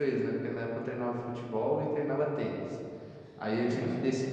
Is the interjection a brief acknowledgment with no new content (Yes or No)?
Yes